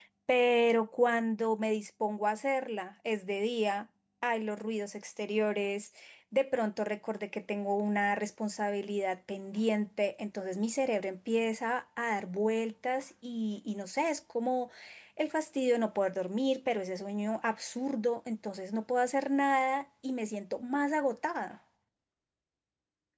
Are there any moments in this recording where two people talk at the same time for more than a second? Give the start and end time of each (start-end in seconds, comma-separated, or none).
none